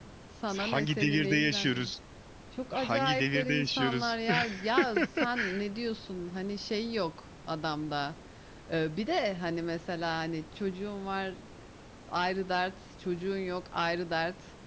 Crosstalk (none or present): present